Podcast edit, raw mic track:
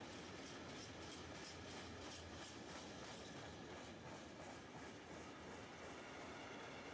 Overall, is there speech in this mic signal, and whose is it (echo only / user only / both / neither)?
neither